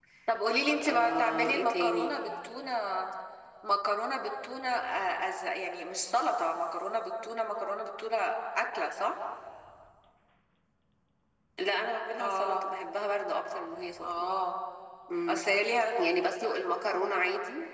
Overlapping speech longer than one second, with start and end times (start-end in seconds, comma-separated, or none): 0.9-2.2